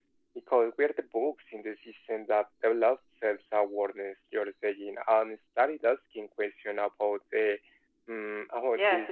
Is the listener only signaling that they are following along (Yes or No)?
No